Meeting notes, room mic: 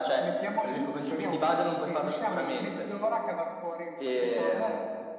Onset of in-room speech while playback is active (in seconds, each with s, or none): none